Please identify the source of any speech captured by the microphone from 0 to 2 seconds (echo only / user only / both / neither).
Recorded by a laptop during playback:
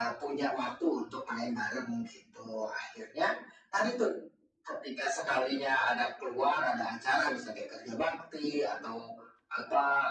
echo only